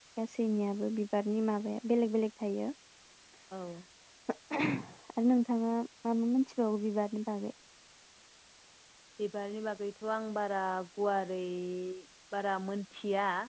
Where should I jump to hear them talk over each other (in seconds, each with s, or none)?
none